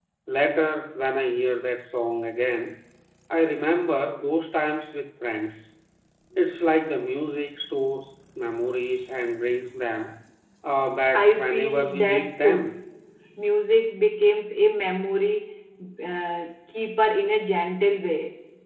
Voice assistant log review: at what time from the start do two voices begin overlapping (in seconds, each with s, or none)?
11.1 s